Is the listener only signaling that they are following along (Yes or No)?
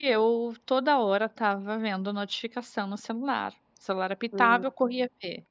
Yes